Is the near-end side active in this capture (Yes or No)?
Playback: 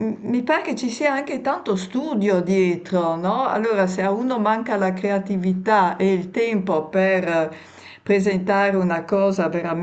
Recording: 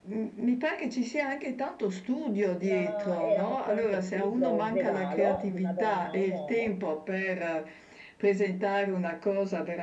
Yes